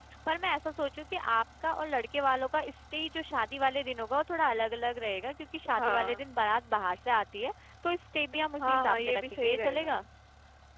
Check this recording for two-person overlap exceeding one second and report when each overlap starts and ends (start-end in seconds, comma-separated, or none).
8.6-9.9